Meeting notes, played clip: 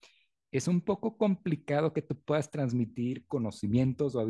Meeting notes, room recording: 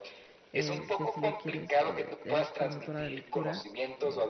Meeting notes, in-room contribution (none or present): present